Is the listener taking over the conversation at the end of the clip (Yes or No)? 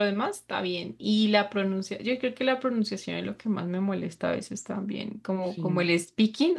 No